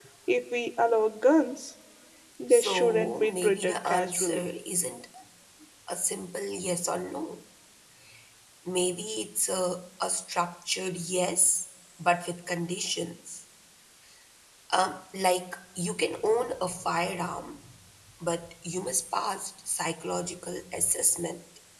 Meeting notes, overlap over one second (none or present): present